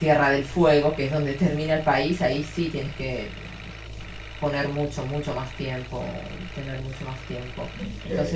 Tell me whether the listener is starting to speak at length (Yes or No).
No